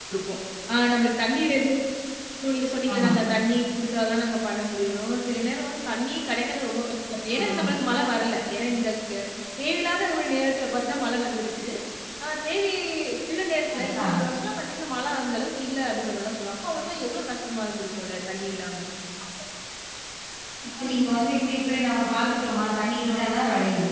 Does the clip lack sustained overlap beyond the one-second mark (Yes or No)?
Yes